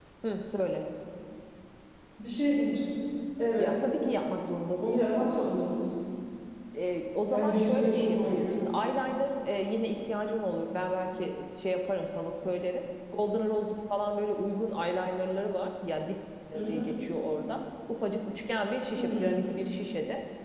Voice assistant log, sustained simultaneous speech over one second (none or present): present